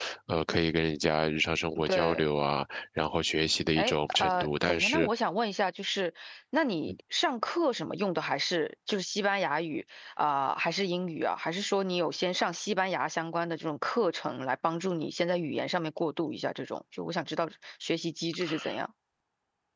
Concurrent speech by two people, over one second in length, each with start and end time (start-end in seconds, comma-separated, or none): 3.8-5.1